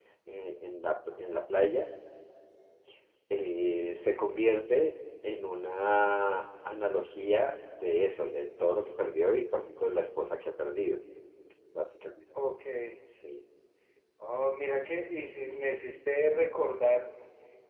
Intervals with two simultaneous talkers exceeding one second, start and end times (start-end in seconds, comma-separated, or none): none